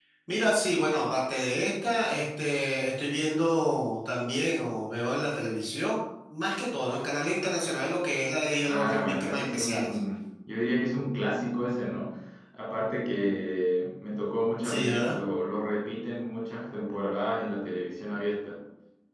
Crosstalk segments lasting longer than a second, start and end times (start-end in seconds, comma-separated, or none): 8.6-10.0